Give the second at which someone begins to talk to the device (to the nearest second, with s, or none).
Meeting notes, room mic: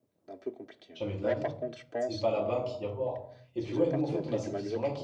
1 s